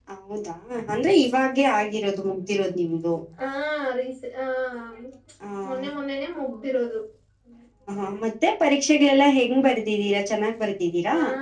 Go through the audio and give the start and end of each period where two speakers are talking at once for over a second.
none

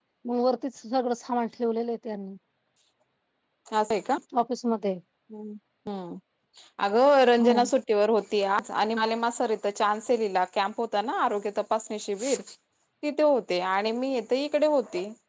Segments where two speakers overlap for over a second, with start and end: none

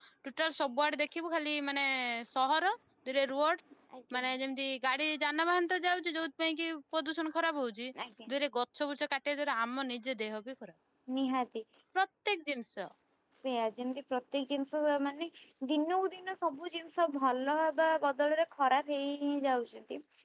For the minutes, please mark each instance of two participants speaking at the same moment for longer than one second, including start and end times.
none

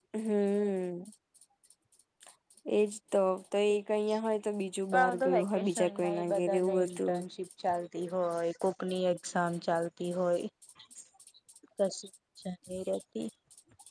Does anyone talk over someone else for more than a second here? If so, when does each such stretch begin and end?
4.9-7.2

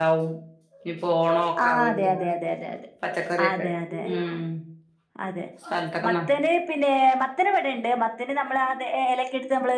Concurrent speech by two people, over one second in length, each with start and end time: none

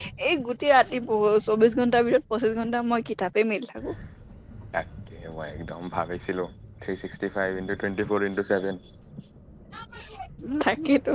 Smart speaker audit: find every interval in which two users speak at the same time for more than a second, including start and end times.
none

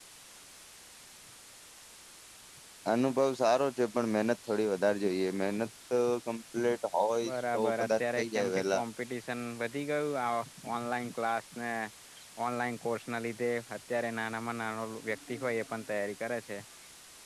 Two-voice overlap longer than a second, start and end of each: 7.3-8.8

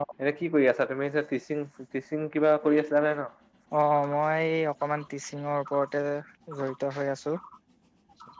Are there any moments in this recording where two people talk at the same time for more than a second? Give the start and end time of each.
none

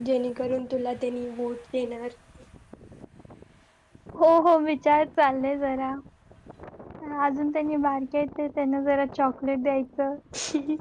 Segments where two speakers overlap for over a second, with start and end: none

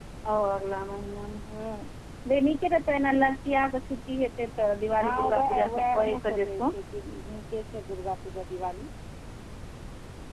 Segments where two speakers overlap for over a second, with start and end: 5.0-6.6

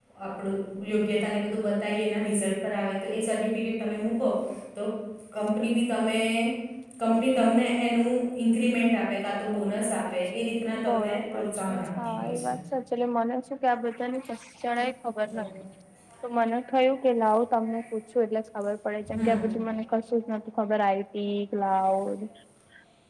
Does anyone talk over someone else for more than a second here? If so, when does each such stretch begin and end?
10.9-12.5

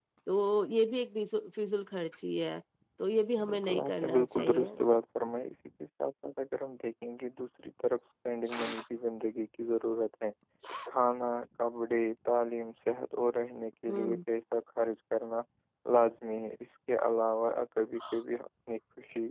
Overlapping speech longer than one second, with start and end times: 3.4-4.7

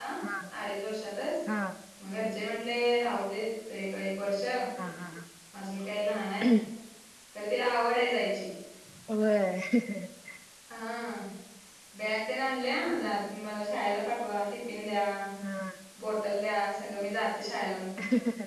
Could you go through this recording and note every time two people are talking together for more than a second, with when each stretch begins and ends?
none

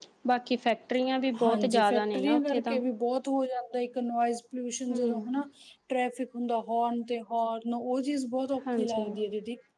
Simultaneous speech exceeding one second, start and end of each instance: 1.4-2.8

